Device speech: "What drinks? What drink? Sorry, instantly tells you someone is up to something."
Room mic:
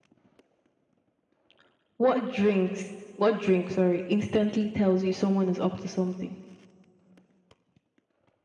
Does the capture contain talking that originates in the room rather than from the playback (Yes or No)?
No